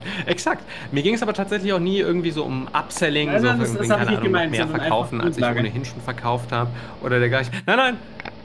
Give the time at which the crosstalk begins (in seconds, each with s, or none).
3.2 s